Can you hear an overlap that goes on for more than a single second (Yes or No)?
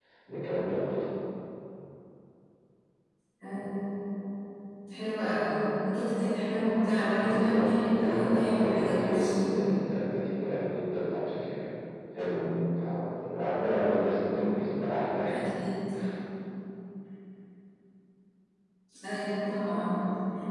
Yes